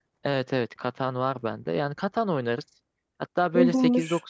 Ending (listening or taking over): listening